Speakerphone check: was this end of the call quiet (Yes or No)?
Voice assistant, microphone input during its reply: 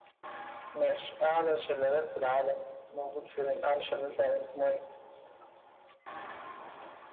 Yes